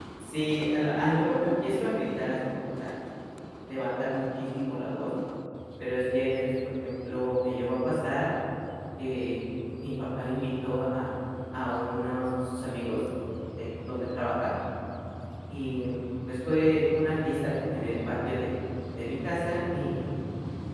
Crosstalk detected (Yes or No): No